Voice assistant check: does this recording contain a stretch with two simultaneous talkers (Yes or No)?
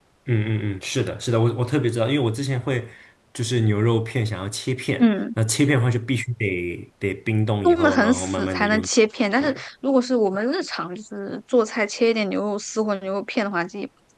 Yes